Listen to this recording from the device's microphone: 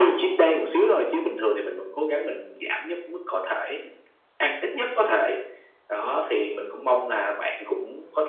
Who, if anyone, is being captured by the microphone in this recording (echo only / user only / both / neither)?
echo only